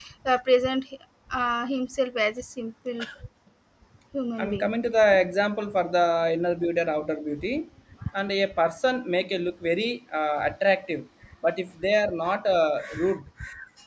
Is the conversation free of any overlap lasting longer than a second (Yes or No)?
Yes